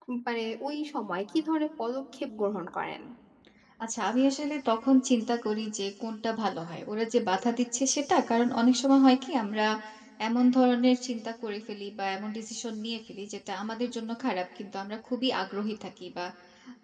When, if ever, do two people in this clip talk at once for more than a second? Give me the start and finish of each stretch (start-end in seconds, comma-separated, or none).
none